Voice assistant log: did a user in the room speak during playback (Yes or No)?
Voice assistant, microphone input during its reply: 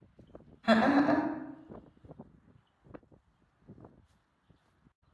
Yes